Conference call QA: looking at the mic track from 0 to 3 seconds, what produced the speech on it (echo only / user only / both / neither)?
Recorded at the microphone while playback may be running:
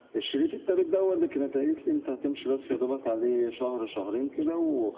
echo only